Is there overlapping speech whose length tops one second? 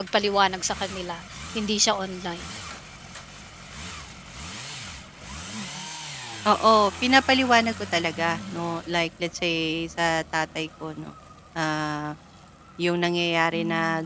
No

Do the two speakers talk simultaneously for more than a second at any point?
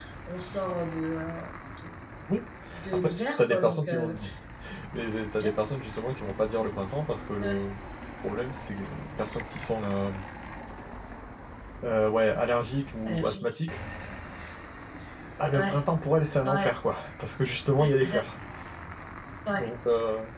Yes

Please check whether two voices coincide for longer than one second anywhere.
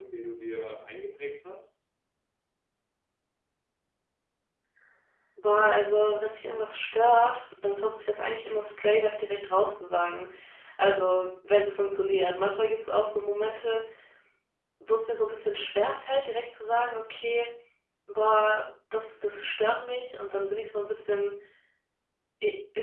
No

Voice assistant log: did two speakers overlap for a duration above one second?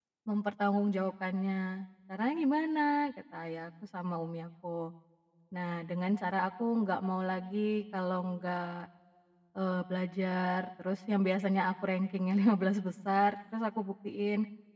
No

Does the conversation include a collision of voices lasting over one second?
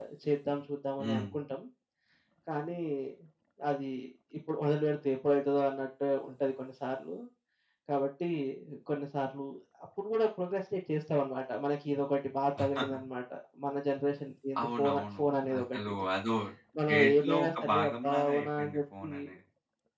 Yes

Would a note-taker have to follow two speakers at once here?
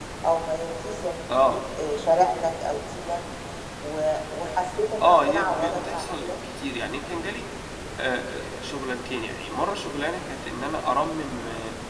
Yes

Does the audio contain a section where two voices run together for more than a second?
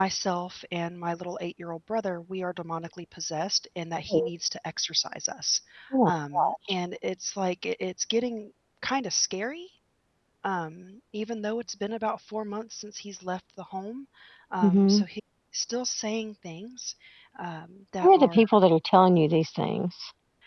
No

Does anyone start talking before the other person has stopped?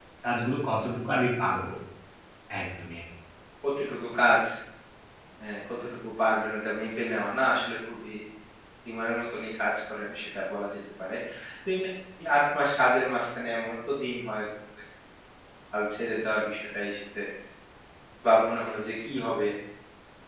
No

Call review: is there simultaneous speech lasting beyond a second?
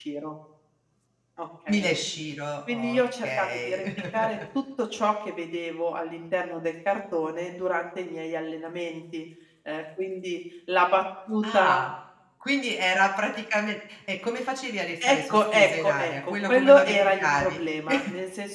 Yes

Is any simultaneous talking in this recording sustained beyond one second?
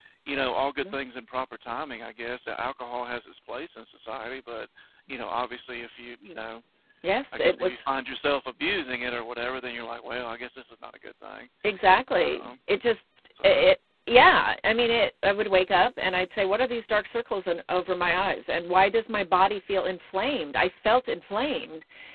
No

